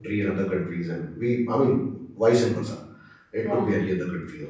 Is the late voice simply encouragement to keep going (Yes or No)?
Yes